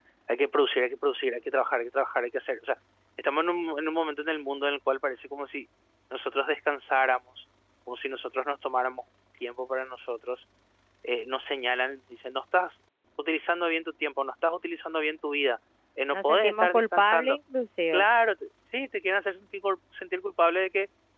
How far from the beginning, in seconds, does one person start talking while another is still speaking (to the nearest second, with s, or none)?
16 s